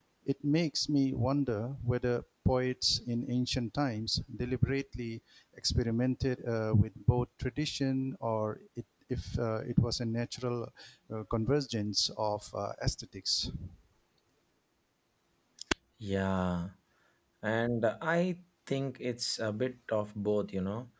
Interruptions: none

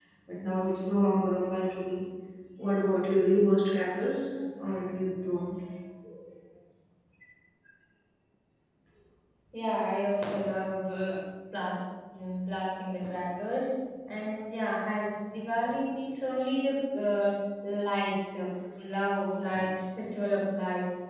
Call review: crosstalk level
none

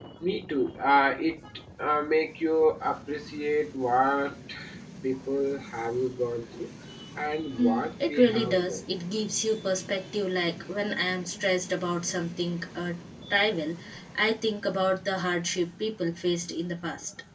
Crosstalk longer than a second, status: present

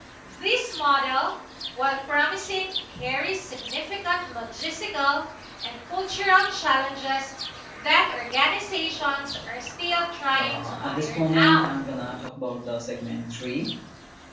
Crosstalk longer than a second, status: present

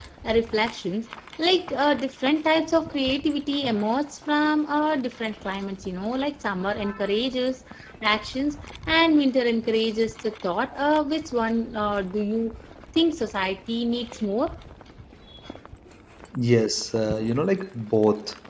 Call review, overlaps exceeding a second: none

